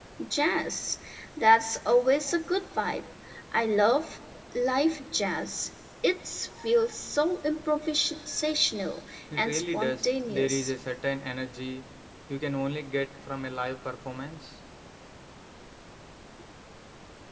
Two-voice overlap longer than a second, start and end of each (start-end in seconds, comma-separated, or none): 9.4-10.7